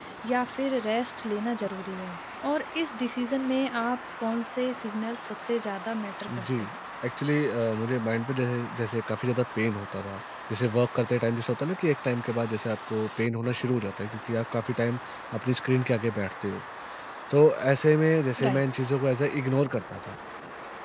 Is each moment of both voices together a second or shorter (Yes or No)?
Yes